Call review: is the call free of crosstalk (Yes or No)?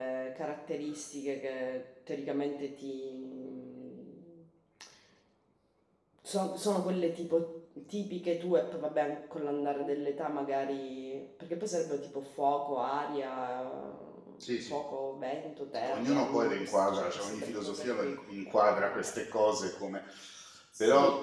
No